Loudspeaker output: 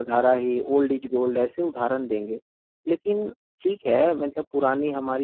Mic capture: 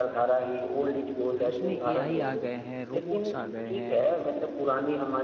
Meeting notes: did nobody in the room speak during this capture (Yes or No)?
No